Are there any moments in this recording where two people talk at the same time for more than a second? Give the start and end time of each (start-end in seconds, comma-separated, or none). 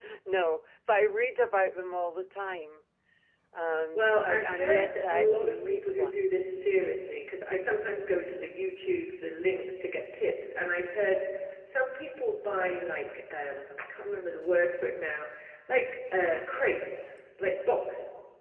3.9-6.2